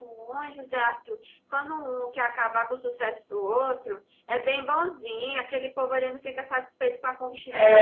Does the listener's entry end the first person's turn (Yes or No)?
Yes